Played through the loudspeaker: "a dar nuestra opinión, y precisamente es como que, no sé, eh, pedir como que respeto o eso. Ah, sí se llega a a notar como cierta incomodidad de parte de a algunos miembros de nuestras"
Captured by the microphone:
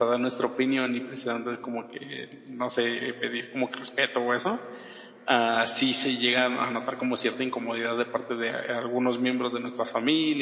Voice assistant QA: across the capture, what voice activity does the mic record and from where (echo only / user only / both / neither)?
echo only